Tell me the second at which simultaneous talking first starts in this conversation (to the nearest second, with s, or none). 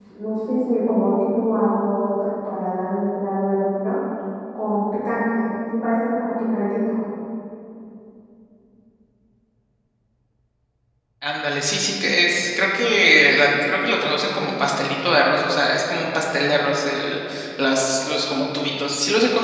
none